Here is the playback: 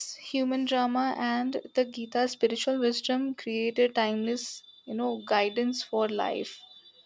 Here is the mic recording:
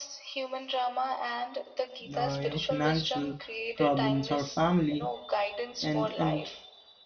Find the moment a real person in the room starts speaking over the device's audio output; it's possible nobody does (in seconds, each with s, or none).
2.1 s